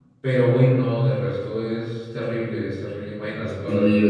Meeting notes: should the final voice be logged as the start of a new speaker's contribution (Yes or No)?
Yes